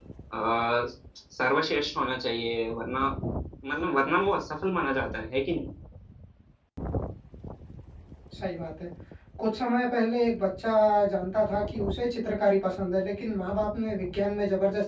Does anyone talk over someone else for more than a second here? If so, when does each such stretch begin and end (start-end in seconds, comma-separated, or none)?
none